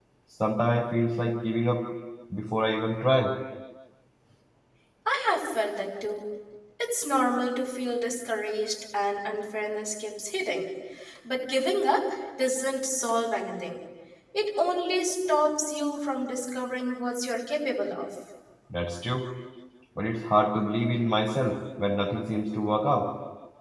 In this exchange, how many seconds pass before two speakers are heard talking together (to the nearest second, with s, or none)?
none